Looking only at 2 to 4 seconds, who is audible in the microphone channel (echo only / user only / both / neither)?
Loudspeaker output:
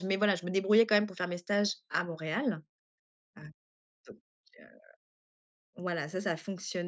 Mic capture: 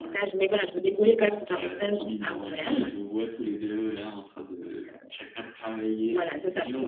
both